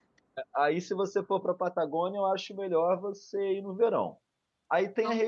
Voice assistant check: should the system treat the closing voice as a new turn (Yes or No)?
No